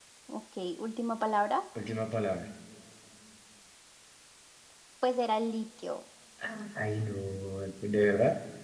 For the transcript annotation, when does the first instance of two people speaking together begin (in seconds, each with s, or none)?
none